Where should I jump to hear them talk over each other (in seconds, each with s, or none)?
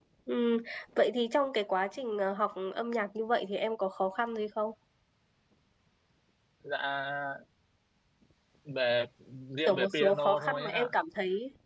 9.7 s